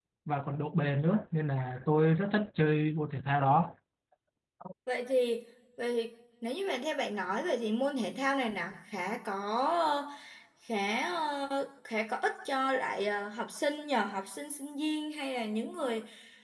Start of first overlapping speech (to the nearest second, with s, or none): none